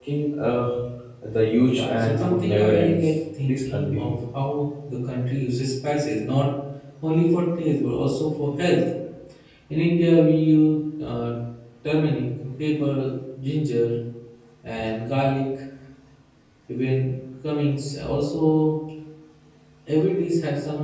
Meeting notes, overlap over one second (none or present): present